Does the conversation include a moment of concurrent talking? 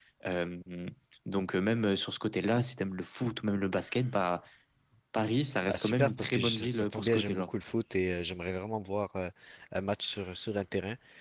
Yes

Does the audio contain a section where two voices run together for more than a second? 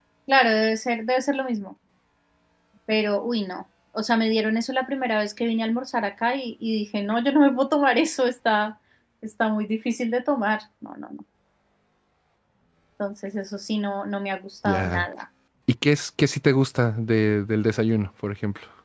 No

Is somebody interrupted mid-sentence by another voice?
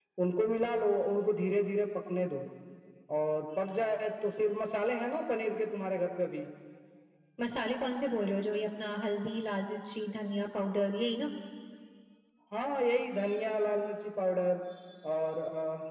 No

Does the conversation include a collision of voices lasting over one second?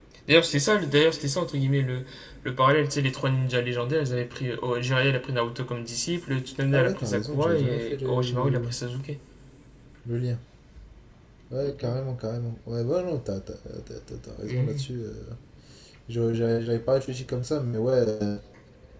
Yes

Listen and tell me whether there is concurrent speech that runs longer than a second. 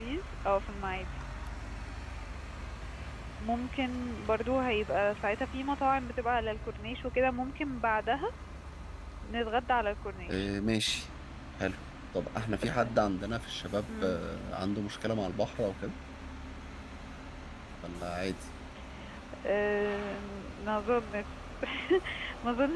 No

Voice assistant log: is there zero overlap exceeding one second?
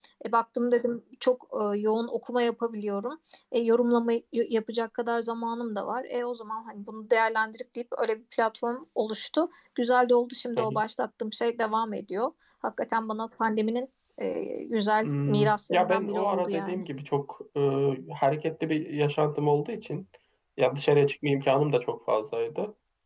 No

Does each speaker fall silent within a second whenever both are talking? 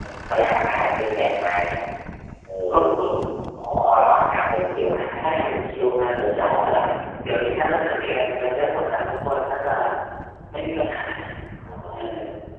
No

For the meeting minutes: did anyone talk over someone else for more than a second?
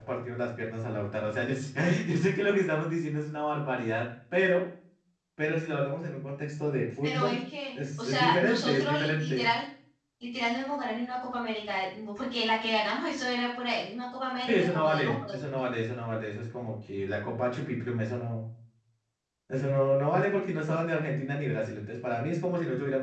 Yes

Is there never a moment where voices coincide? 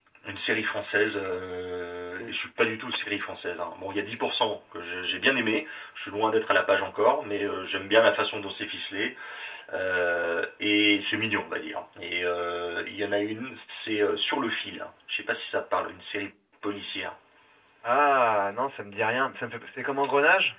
Yes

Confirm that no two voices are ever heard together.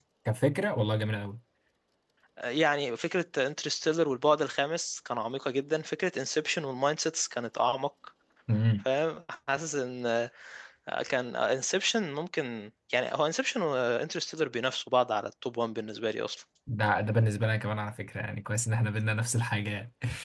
Yes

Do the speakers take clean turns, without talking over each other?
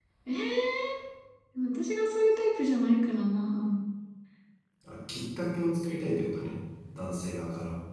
Yes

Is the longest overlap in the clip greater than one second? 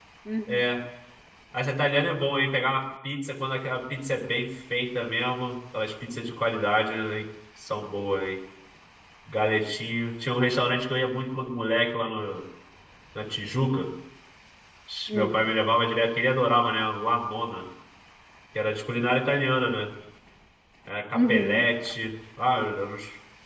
No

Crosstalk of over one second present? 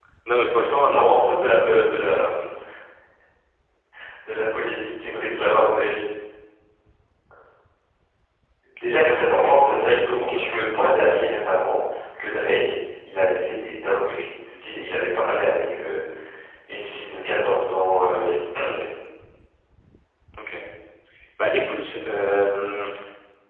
Yes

